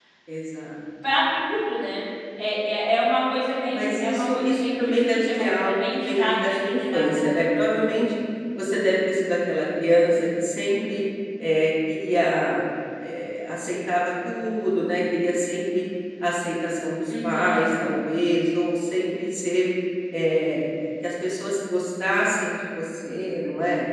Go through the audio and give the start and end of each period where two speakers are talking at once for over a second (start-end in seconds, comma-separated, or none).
3.7-7.1